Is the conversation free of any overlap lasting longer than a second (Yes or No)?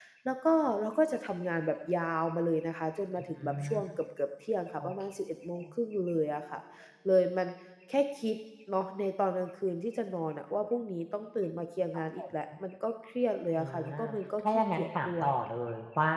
No